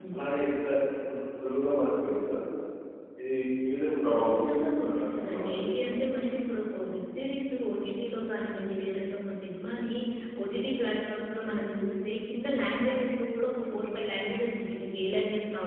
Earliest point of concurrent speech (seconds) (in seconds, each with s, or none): 4.1 s